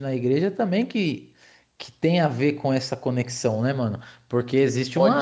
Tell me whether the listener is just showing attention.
Yes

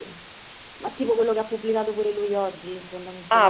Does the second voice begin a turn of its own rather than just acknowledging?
Yes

